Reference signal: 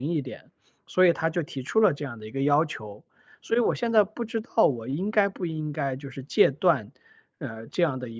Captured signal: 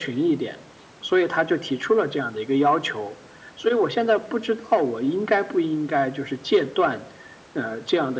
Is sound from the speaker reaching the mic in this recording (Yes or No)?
Yes